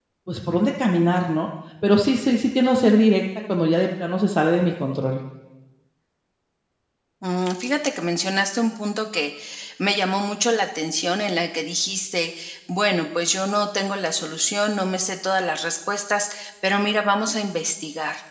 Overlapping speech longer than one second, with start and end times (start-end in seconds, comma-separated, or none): none